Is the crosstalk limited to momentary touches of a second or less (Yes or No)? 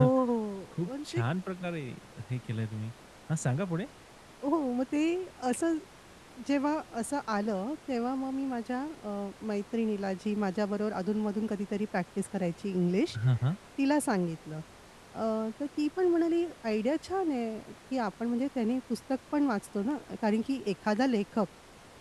Yes